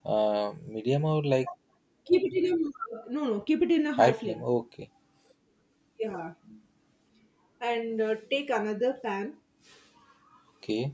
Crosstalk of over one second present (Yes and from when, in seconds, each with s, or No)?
No